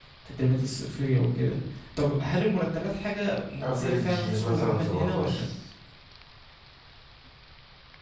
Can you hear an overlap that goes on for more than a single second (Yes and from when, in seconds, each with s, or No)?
Yes, from 3.6 s